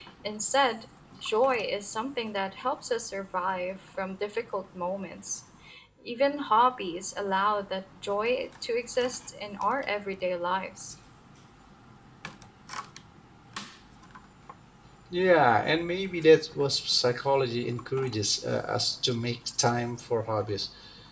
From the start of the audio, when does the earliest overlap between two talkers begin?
none

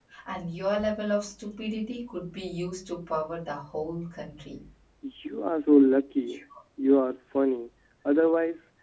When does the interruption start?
none

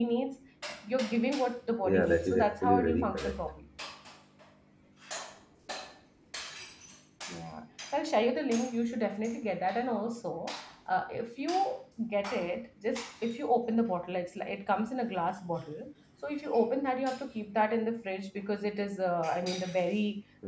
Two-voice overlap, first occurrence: 1.8 s

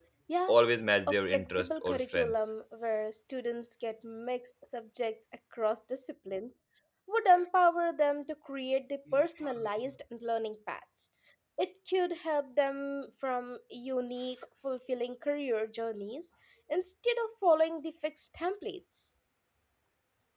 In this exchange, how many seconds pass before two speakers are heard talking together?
1.1 s

